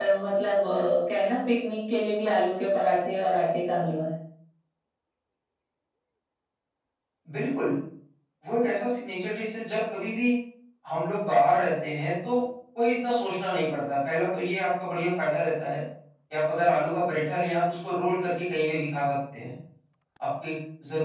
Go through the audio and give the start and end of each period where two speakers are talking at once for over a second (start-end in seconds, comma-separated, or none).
none